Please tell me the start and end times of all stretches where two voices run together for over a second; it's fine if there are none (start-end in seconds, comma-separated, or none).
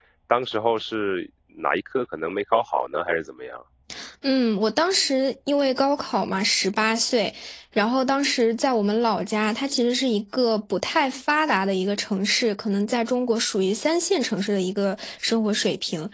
none